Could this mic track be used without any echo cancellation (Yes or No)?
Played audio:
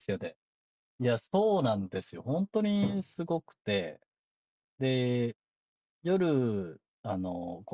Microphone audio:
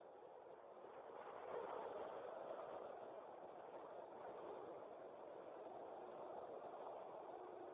Yes